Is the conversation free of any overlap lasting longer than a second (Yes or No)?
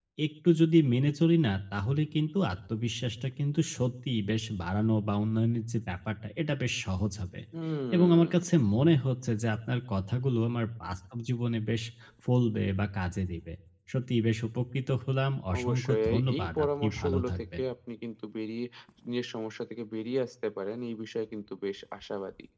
No